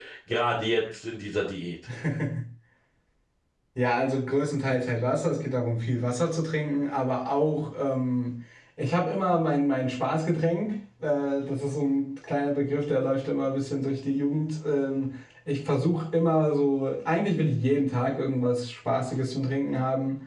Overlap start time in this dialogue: none

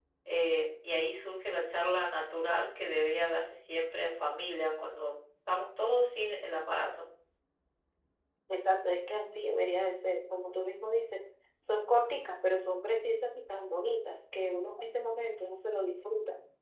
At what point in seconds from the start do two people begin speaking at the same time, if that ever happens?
none

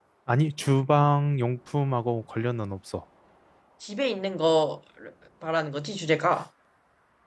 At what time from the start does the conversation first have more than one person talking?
none

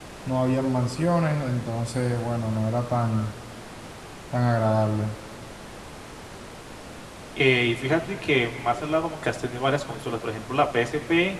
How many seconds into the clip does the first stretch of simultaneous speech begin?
none

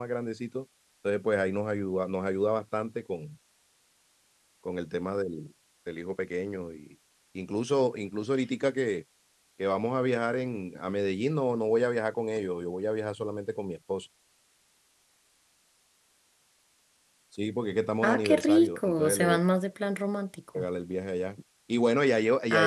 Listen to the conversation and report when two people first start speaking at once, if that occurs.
18.0 s

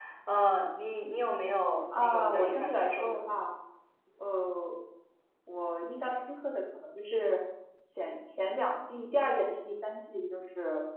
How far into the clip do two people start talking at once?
1.9 s

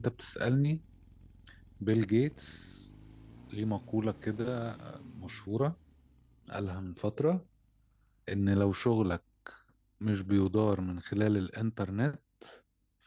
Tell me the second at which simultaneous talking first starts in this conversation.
none

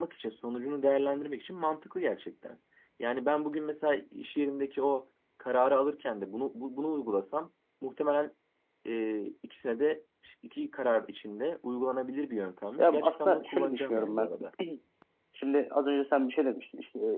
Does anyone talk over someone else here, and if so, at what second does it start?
12.8 s

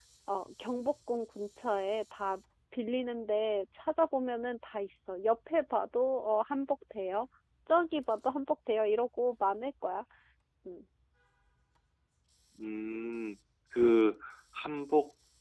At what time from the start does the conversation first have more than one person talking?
none

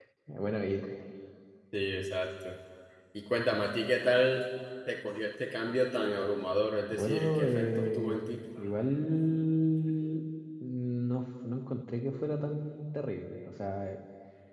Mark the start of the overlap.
6.9 s

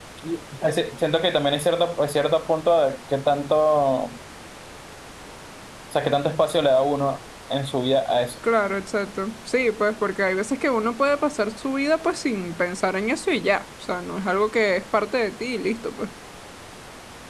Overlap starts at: none

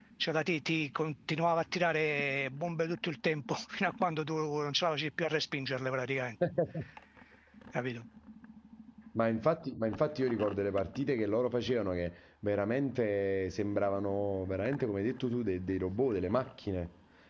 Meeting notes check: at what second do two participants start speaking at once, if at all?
none

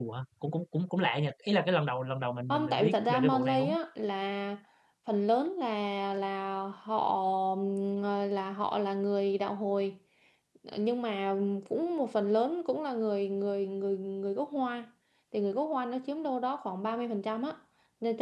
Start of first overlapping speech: 2.5 s

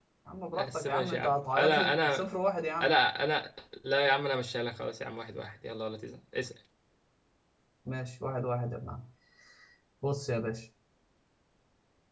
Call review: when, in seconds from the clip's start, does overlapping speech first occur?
0.6 s

